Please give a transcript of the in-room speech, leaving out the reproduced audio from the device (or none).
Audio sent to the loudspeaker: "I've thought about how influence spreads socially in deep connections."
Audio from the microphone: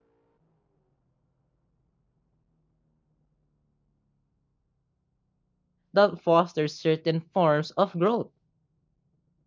that fosters certain forms of growth.